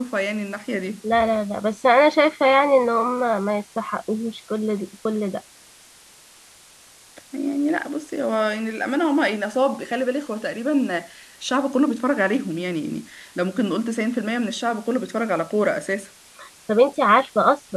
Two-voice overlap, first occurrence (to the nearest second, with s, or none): none